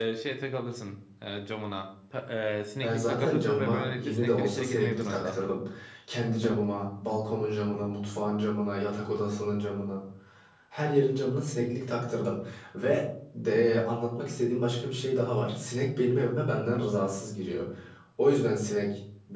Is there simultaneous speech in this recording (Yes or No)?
Yes